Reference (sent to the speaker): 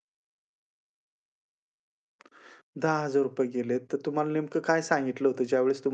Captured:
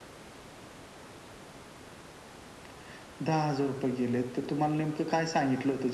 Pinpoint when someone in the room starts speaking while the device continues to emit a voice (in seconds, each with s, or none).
none